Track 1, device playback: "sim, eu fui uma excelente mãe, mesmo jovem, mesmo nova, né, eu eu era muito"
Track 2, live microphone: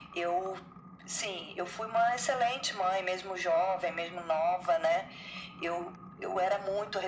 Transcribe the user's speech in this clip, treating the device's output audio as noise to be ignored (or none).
none